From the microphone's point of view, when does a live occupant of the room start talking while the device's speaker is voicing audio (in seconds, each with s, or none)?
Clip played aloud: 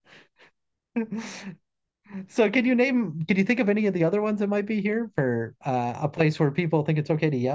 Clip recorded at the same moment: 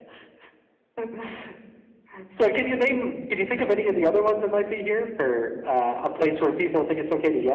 none